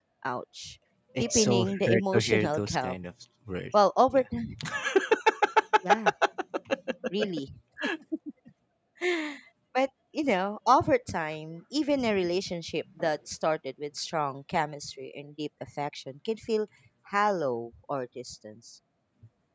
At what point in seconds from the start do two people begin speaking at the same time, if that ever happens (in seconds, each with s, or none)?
1.2 s